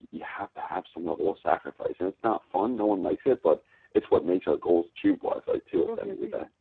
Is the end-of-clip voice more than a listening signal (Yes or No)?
Yes